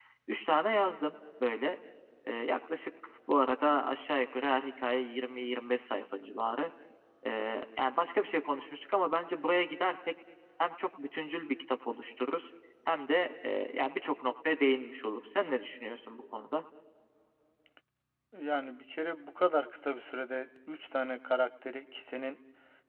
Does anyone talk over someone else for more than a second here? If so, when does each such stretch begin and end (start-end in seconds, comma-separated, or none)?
none